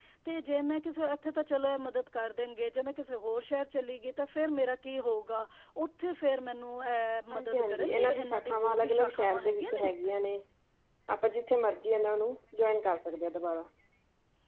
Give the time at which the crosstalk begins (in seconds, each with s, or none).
7.3 s